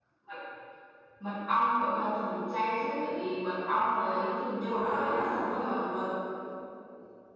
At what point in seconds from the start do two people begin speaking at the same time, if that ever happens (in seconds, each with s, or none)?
4.6 s